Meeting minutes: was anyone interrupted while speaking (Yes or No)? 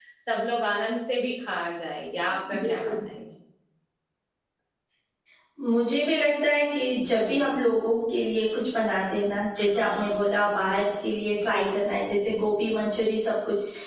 Yes